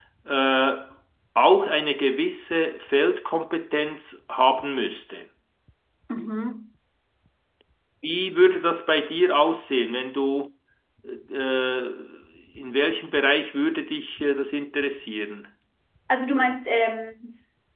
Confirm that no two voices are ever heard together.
Yes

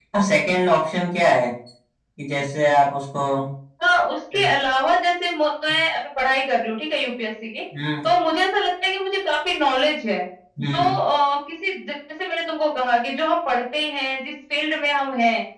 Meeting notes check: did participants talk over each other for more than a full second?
No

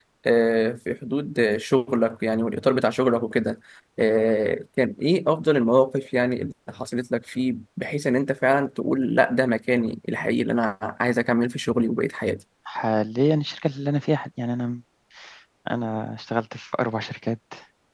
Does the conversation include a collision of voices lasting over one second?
No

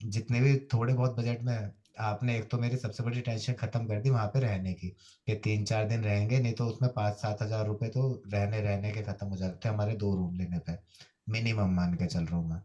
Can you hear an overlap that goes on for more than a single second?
No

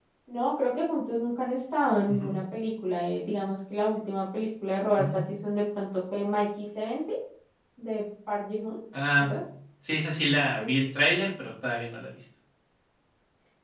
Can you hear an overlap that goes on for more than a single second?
No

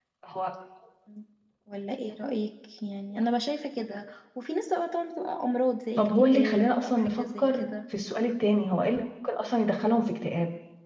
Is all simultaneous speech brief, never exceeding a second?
No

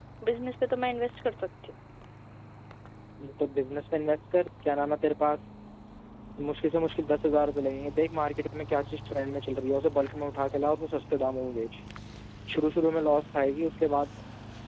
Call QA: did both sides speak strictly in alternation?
Yes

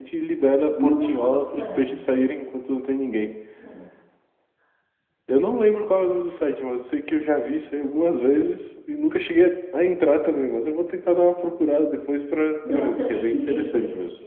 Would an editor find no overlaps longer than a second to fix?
No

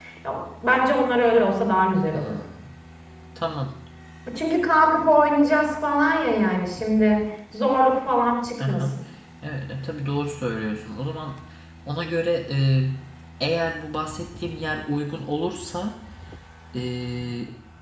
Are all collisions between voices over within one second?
Yes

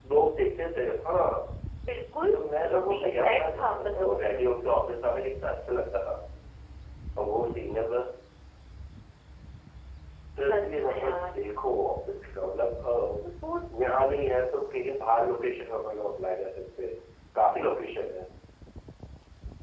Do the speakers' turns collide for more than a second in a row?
Yes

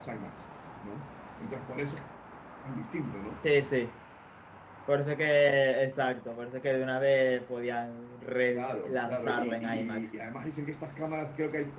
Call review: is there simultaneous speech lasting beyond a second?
Yes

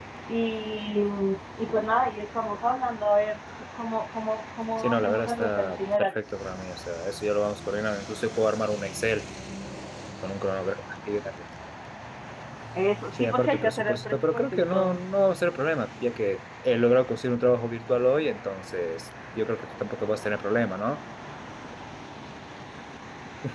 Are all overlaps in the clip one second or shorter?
No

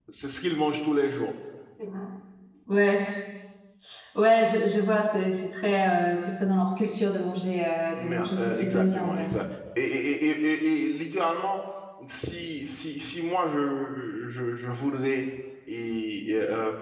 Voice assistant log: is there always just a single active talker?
No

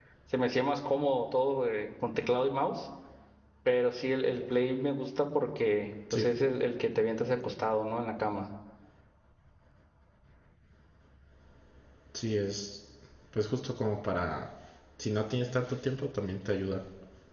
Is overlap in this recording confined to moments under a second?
Yes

